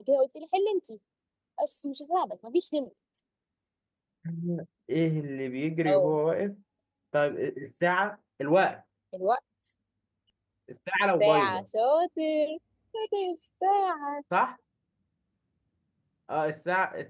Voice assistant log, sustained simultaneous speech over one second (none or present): none